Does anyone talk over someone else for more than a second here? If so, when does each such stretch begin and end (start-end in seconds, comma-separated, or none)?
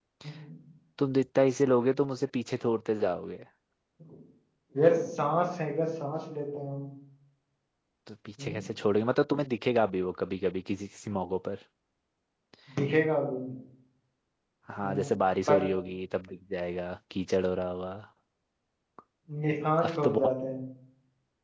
none